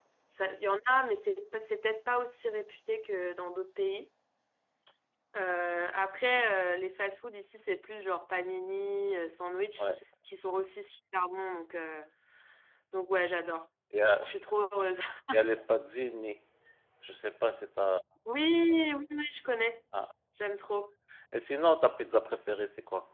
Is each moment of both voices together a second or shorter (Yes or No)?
Yes